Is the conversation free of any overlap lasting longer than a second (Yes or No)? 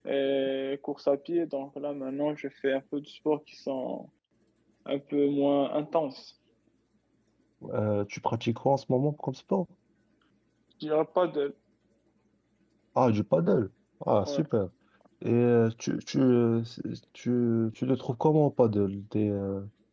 Yes